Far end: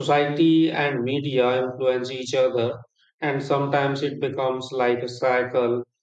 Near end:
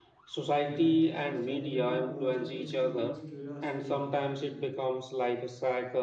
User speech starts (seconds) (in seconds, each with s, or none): 0.7 s